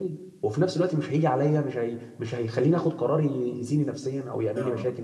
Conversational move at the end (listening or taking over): taking over